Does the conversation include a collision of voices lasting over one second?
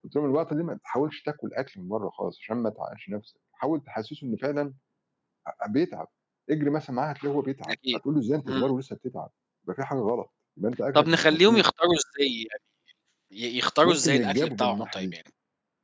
Yes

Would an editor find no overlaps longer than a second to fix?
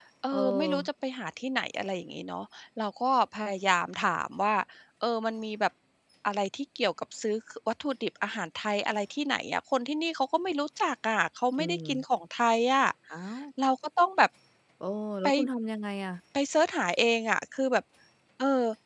Yes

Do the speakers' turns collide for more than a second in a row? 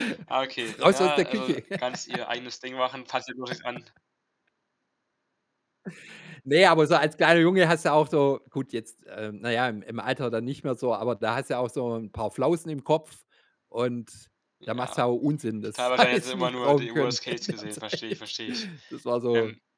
Yes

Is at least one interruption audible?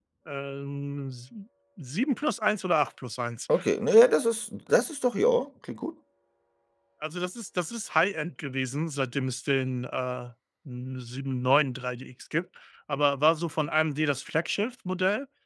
No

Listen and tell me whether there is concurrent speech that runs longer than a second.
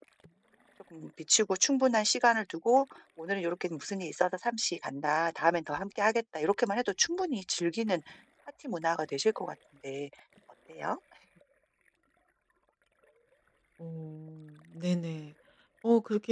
No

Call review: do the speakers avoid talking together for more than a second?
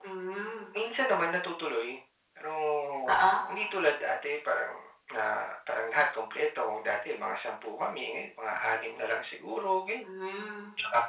Yes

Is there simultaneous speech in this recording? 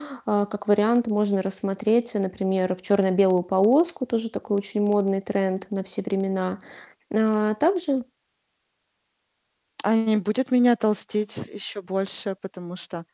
No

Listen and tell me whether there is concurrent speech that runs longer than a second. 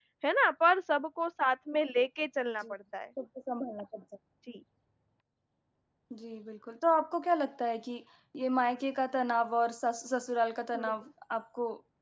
No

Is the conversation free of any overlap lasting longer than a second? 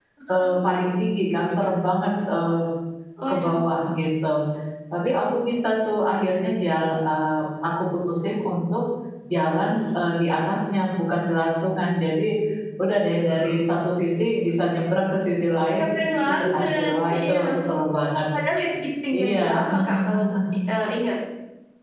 No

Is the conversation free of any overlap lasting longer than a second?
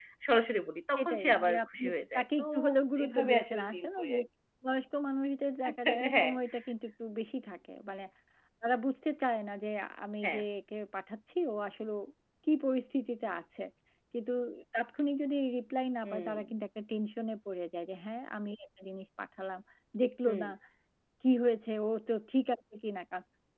No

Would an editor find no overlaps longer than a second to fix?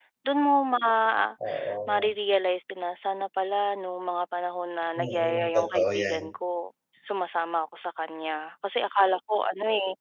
No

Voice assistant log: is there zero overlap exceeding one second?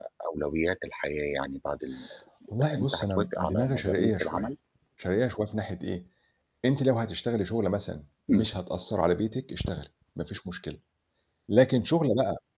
No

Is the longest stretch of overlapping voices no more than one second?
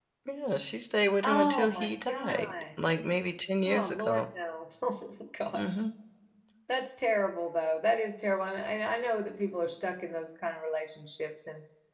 No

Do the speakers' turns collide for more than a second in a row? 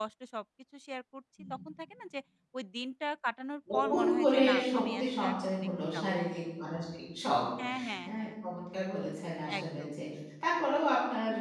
Yes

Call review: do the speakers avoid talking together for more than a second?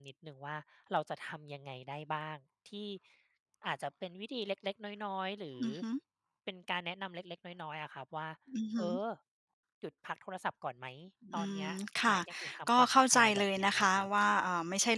No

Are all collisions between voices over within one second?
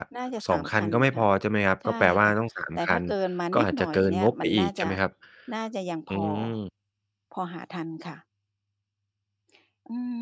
No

